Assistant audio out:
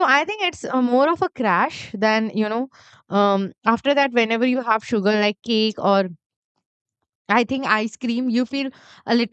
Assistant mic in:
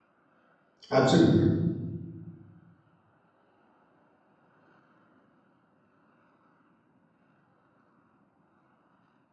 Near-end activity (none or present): present